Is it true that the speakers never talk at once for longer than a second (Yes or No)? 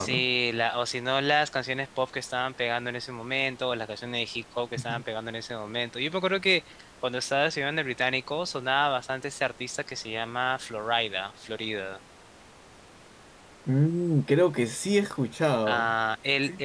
Yes